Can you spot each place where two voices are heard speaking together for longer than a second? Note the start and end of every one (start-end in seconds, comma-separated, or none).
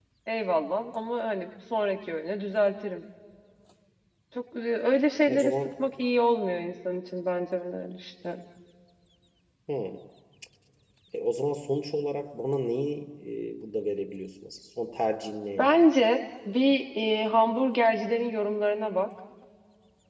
none